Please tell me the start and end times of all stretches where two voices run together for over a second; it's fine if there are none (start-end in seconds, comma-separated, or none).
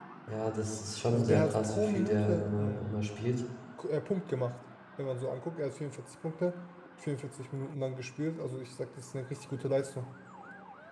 1.1-2.9